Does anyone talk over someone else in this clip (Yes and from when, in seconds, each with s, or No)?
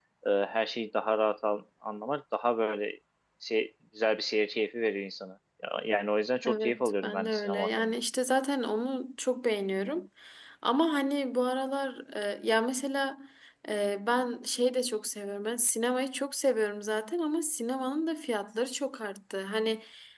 Yes, from 6.4 s